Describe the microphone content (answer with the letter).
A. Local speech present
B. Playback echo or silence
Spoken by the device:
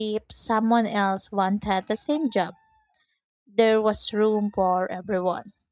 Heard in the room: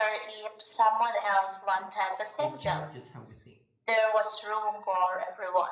A